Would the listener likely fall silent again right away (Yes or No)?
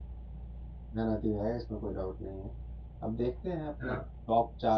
Yes